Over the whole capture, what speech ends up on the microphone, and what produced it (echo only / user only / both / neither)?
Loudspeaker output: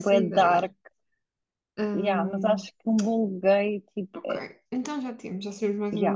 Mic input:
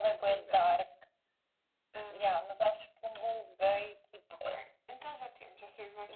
echo only